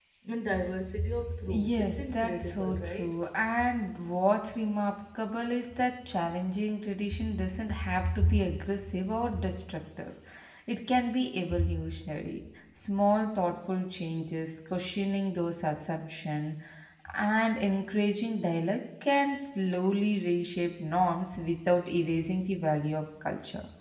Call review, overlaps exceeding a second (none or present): present